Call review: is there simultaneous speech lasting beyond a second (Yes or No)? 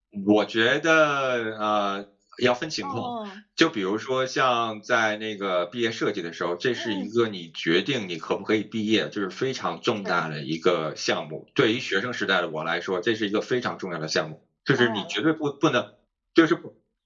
No